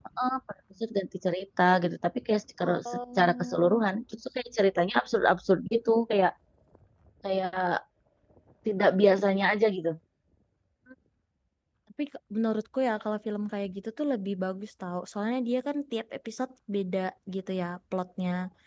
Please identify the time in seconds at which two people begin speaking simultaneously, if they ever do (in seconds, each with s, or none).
2.6 s